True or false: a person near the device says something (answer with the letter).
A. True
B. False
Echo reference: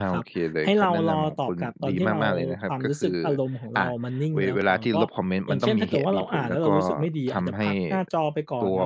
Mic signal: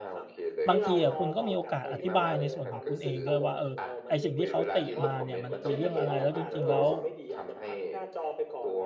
A